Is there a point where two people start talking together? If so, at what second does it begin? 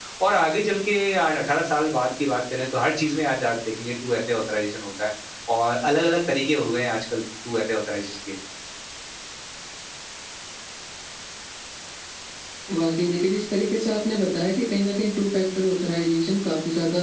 none

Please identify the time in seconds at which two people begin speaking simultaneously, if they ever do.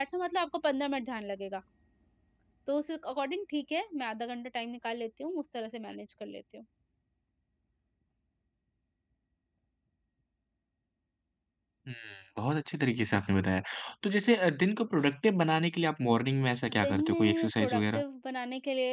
16.6 s

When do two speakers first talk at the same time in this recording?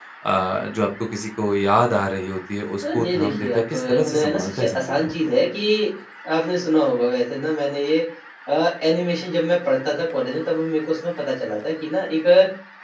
2.8 s

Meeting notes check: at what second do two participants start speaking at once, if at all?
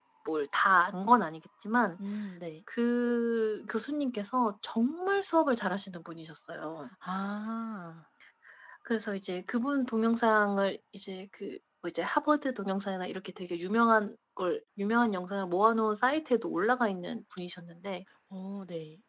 none

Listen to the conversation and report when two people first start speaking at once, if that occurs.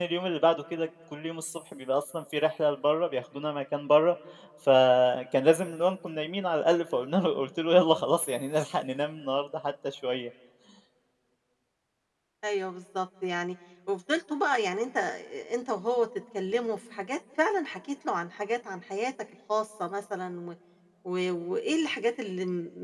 none

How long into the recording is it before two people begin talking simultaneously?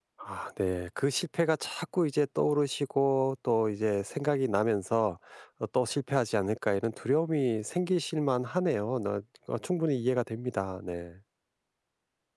none

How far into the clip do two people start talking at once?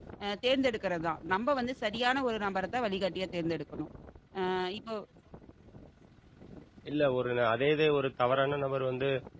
none

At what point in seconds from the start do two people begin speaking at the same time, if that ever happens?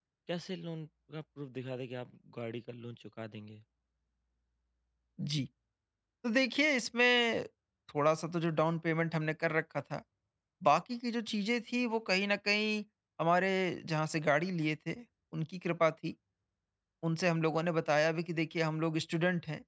none

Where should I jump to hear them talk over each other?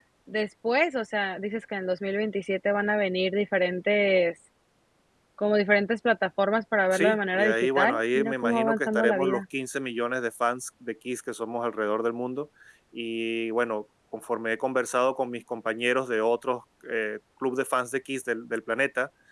6.9 s

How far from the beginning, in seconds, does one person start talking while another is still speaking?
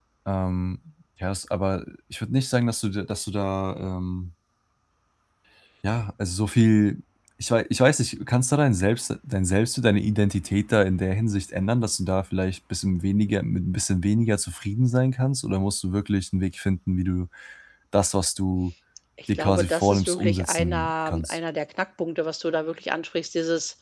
19.4 s

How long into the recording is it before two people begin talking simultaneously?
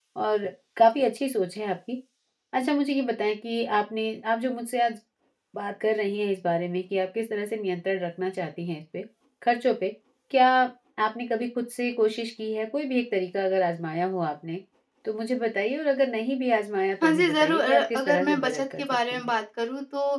17.0 s

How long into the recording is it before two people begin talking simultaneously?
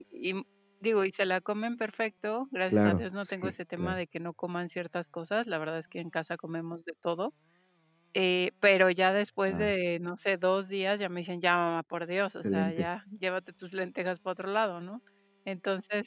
2.7 s

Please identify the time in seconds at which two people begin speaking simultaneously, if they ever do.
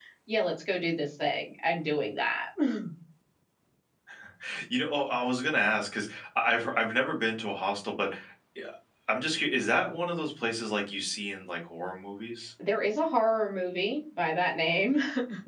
none

